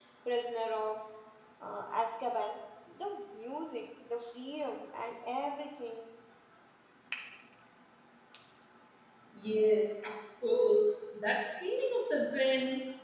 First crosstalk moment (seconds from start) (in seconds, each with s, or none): none